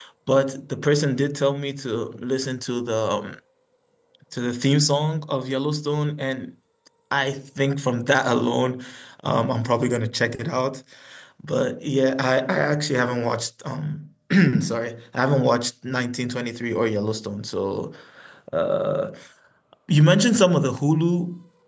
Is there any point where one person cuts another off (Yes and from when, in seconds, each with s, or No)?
No